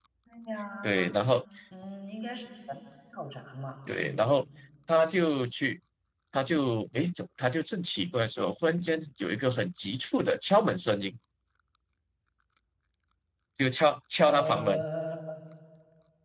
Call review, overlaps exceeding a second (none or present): none